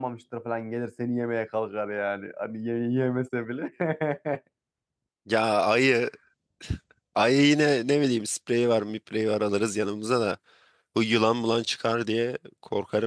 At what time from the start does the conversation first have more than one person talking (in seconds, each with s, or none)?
none